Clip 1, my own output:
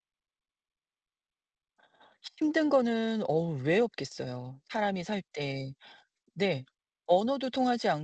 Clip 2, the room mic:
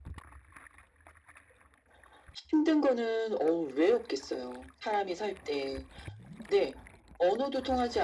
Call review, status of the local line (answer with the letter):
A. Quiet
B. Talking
A